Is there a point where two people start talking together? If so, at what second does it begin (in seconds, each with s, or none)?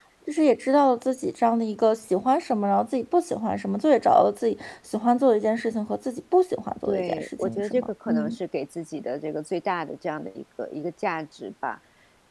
6.9 s